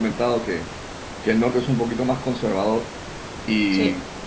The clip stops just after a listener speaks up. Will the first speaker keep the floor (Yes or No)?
Yes